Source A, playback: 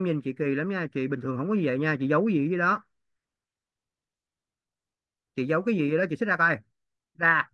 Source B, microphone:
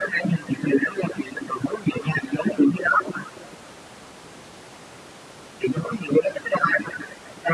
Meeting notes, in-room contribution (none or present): none